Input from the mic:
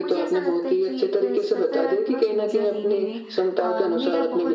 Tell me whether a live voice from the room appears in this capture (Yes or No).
Yes